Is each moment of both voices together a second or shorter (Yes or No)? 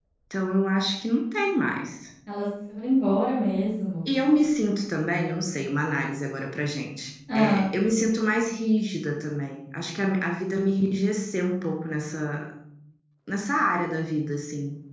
Yes